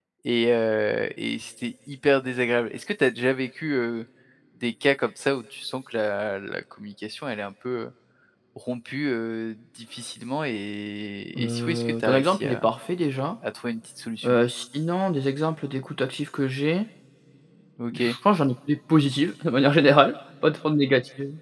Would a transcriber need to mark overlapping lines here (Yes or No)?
Yes